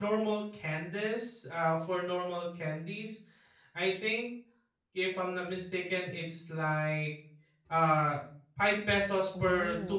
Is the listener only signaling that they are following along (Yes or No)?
No